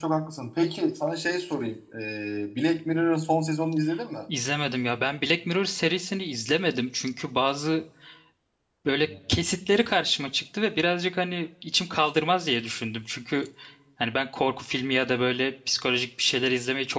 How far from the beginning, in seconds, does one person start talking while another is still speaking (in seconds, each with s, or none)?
none